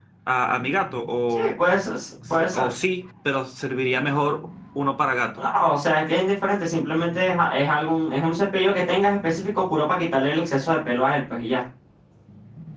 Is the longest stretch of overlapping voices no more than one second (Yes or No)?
Yes